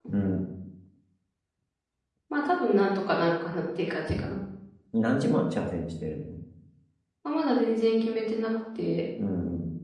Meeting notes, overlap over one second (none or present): none